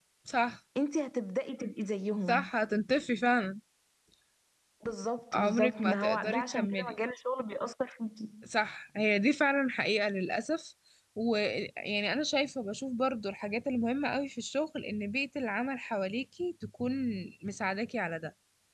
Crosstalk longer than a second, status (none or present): present